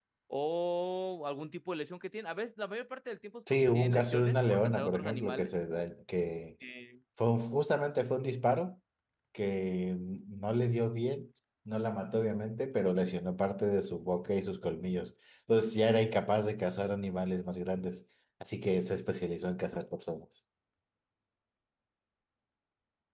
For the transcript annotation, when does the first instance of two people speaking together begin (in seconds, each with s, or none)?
3.5 s